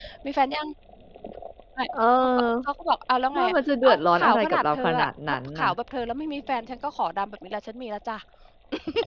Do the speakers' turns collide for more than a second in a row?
Yes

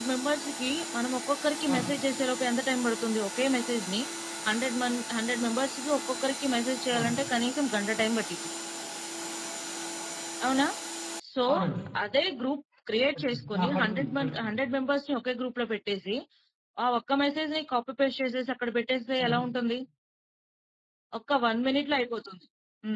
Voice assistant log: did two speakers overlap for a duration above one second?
Yes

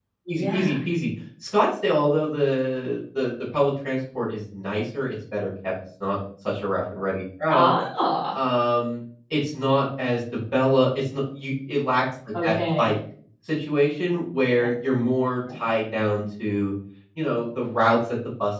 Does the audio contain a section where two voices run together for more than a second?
No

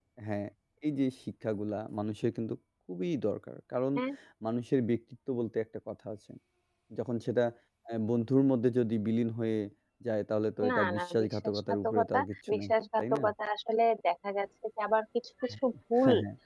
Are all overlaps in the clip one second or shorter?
No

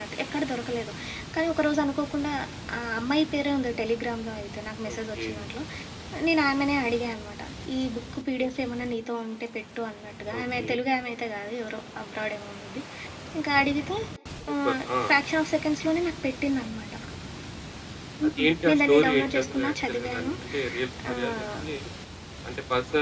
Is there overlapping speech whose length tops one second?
Yes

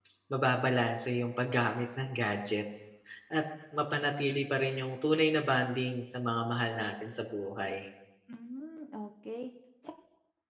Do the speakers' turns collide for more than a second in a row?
No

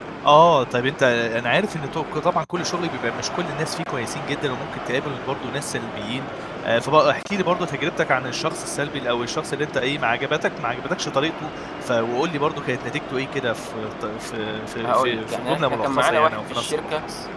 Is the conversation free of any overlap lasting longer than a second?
No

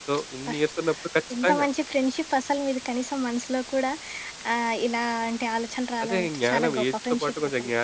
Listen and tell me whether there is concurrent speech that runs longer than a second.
Yes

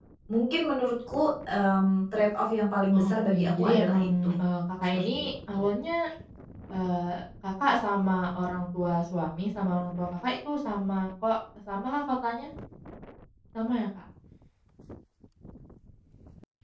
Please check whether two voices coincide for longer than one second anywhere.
Yes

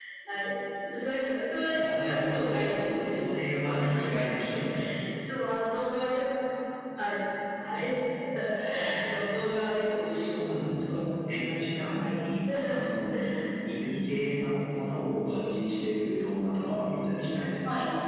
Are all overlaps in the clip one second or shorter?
No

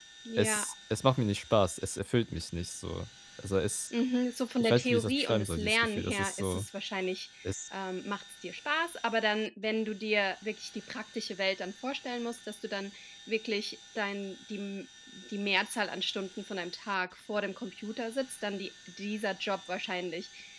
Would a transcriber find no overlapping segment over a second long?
No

